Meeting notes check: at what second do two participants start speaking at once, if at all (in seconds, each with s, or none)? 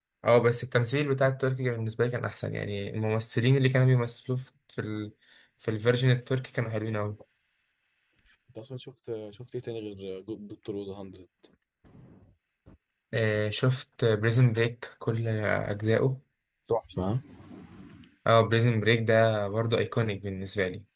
none